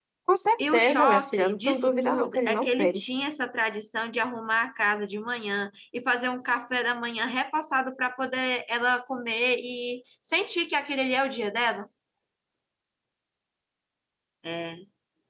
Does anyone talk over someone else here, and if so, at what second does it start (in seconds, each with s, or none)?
0.6 s